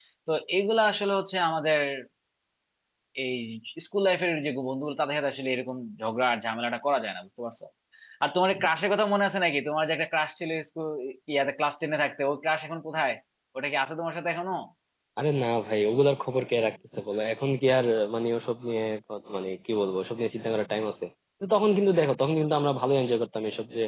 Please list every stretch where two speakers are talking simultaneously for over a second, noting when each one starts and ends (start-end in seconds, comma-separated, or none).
none